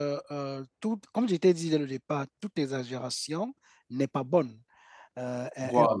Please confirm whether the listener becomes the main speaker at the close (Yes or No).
No